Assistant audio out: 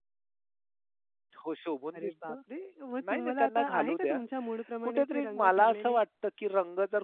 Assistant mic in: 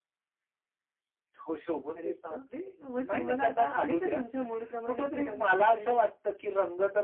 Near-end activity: none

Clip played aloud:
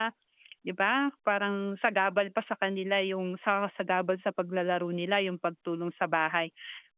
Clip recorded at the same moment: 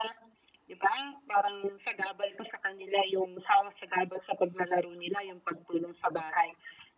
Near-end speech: none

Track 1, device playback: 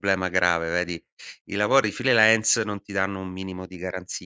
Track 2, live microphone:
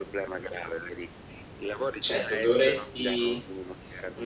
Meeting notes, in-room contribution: present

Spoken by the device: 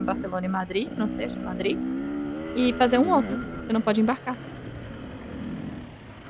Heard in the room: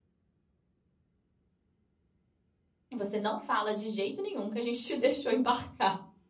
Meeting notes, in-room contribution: present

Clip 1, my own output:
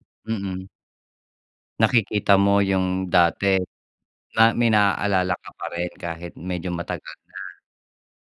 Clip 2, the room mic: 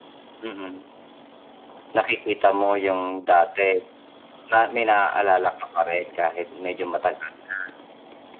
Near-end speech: none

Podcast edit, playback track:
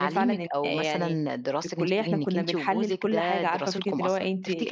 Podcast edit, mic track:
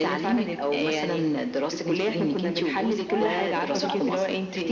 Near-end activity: present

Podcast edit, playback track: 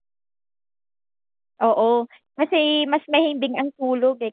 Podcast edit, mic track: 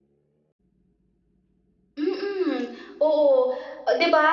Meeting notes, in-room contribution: present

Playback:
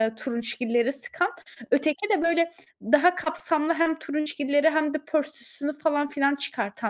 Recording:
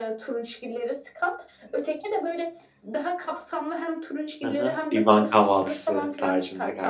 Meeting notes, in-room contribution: present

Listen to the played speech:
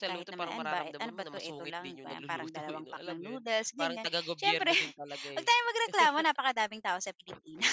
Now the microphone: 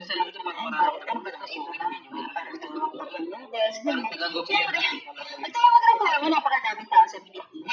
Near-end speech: none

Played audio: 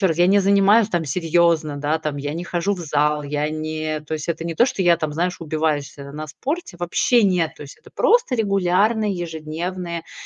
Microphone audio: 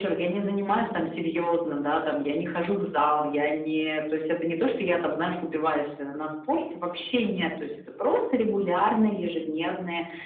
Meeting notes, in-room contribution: none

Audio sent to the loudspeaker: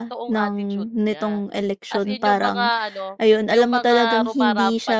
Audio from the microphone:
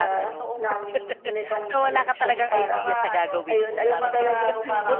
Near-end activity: present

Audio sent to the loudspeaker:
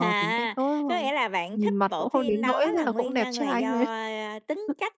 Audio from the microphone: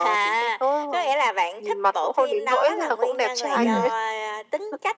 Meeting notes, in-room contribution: present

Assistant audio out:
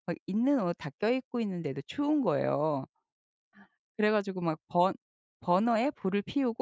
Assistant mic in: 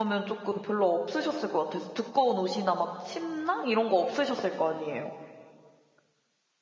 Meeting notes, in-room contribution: present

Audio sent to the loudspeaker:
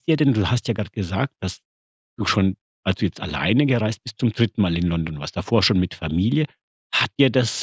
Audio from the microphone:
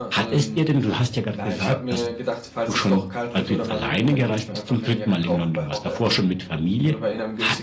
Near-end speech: present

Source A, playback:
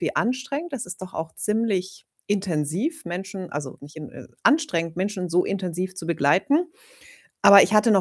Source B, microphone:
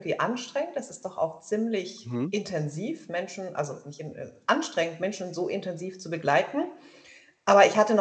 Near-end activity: present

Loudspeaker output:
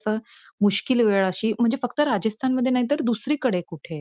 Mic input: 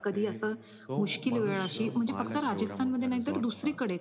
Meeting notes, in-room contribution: present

